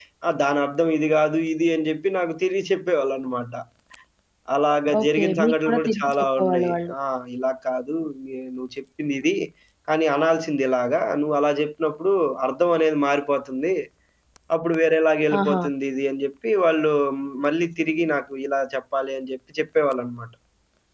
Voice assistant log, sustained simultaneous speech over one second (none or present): present